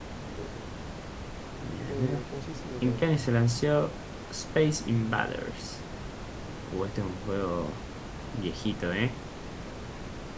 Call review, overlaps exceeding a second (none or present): none